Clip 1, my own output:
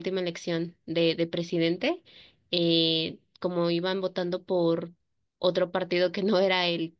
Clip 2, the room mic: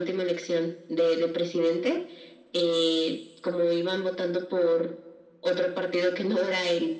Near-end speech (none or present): none